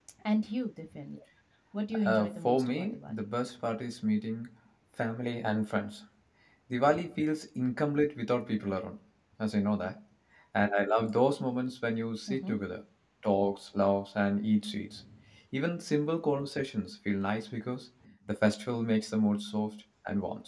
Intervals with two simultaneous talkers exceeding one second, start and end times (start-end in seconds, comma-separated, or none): 2.0-3.3